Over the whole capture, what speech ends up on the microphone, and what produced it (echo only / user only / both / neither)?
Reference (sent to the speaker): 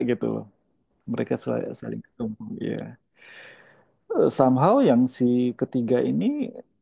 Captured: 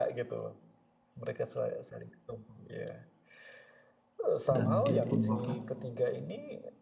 both